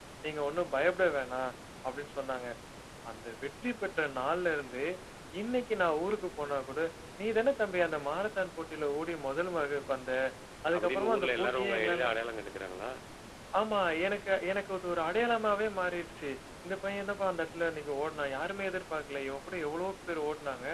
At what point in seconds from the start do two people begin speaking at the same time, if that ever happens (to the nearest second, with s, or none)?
11 s